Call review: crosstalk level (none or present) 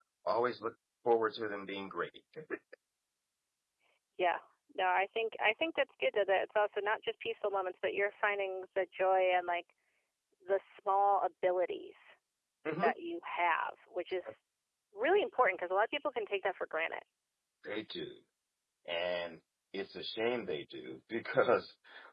none